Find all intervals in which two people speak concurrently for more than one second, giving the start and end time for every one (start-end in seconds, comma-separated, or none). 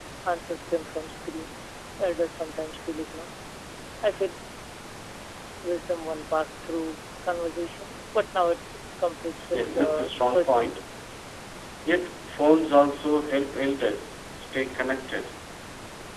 9.5-10.8